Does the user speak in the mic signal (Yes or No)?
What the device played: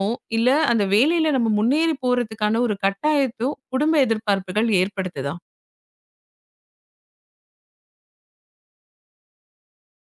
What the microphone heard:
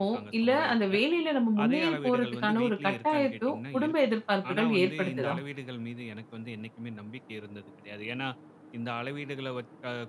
Yes